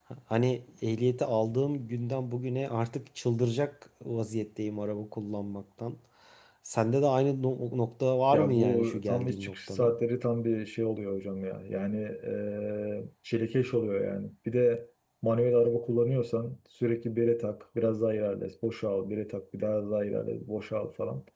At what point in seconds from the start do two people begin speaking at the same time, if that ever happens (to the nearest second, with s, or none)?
8 s